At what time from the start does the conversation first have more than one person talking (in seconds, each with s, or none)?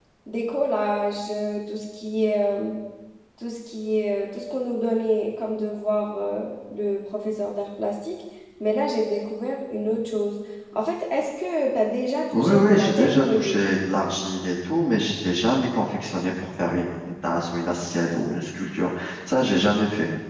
12.3 s